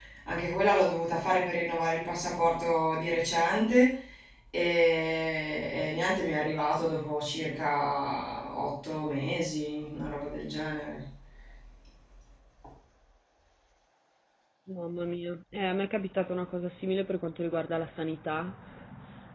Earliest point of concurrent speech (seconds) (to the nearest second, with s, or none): none